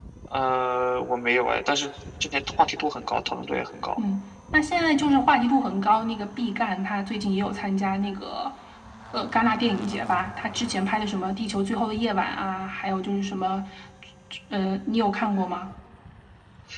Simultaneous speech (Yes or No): No